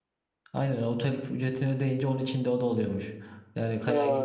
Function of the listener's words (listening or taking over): listening